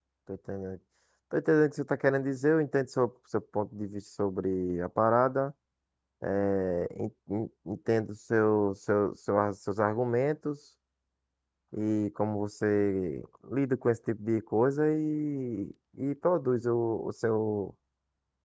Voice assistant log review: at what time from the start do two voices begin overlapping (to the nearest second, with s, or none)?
none